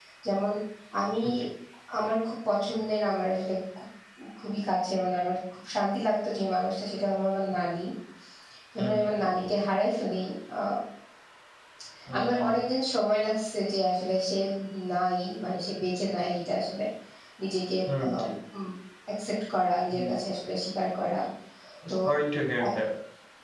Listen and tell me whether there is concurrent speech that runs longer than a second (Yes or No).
No